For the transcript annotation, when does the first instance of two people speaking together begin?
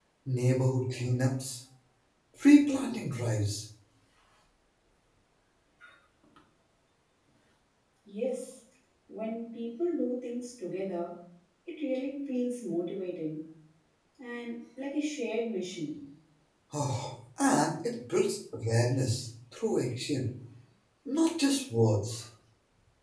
none

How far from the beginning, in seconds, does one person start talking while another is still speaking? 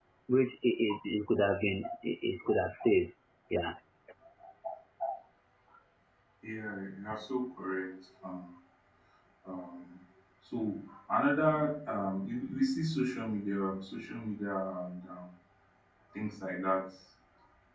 none

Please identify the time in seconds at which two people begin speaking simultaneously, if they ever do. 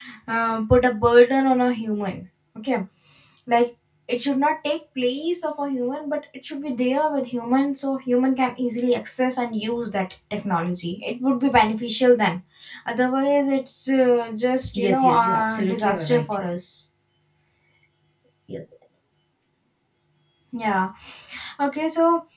14.7 s

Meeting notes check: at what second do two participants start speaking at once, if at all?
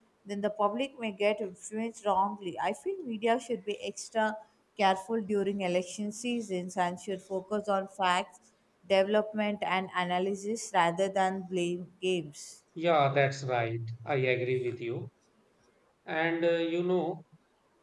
none

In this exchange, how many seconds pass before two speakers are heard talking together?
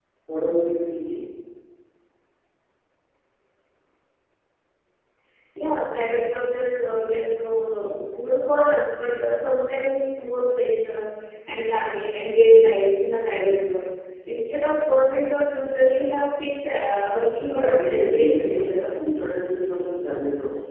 17.4 s

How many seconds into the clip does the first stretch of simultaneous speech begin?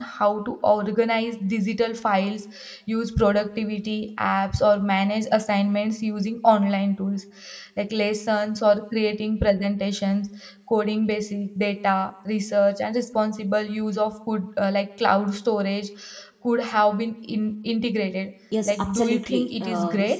18.5 s

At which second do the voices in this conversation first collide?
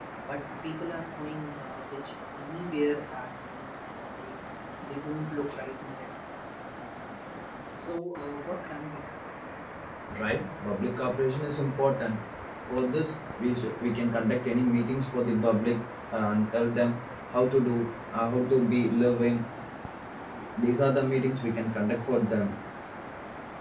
none

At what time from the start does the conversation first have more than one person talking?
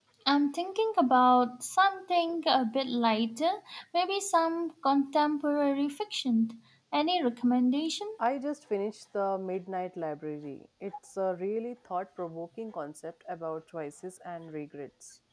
none

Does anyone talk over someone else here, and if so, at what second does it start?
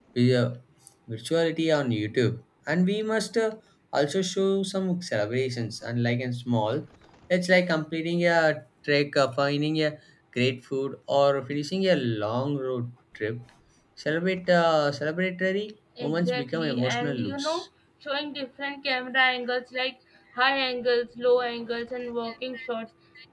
16.0 s

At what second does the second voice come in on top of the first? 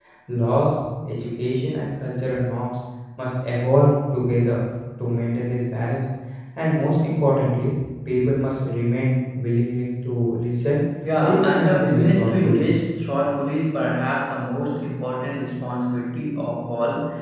11.2 s

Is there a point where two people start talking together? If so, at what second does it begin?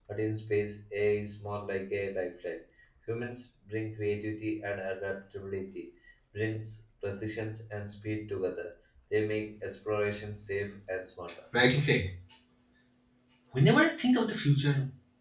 none

